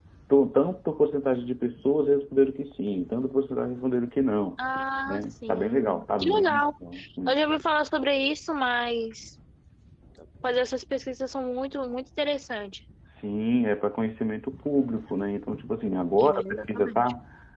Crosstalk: present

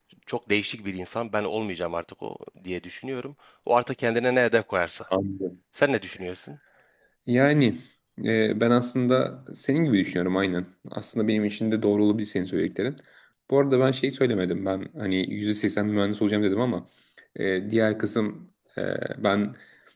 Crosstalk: none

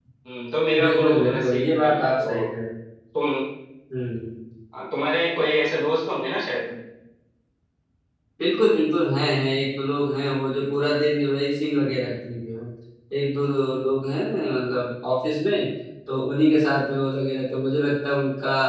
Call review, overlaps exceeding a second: present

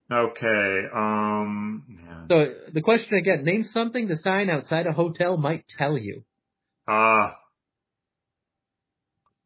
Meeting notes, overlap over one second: none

